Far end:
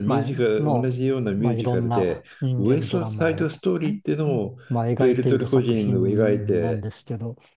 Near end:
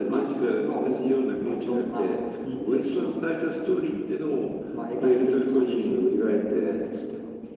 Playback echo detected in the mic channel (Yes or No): Yes